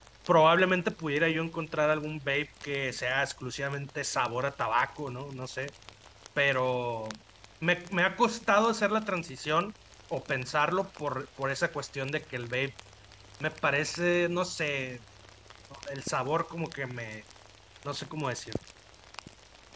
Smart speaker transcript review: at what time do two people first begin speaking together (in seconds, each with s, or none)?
none